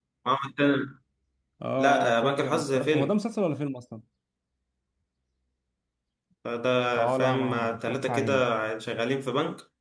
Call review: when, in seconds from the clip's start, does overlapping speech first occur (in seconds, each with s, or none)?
1.8 s